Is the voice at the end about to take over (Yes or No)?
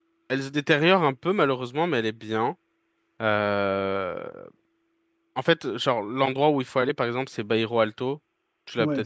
Yes